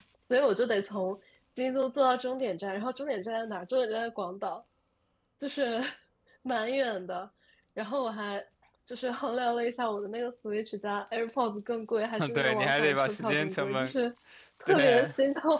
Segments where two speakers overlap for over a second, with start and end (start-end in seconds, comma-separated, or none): 12.2-13.9